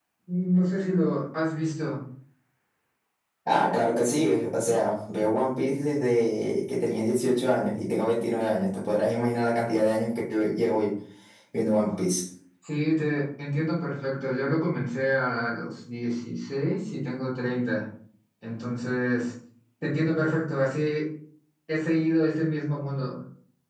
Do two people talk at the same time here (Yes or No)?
No